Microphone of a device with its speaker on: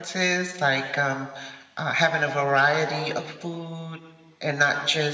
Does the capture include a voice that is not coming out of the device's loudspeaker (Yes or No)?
No